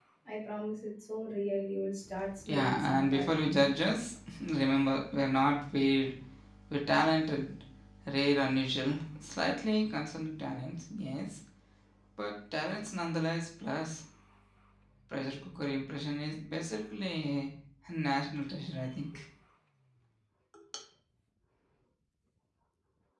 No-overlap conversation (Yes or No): No